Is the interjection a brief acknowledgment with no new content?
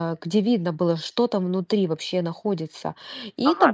No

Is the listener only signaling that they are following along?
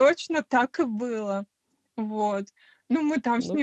Yes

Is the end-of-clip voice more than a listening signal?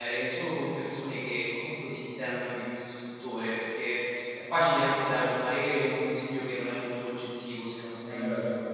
No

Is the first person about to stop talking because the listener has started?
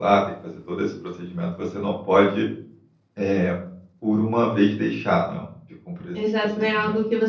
Yes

